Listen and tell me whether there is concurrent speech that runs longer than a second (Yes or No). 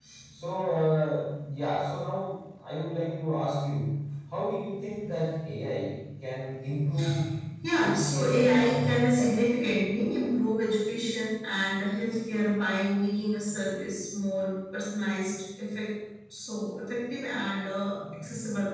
Yes